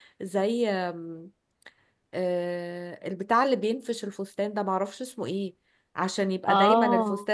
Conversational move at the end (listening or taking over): listening